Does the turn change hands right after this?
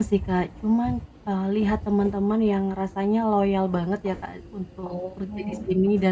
No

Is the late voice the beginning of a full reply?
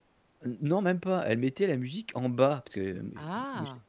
No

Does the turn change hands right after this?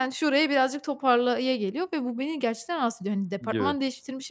No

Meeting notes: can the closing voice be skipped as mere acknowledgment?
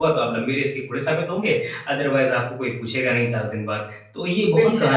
No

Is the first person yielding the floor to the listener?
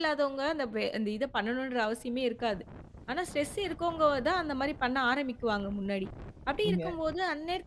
No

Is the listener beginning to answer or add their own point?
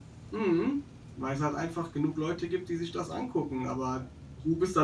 No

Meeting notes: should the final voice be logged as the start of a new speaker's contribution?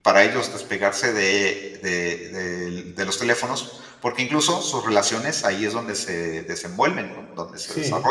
Yes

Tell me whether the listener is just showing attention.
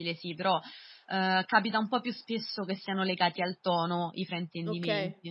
No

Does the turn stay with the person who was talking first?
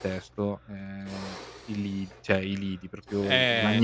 No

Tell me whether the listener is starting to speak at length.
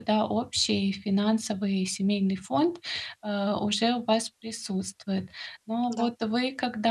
No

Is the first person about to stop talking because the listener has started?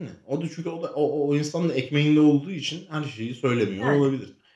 No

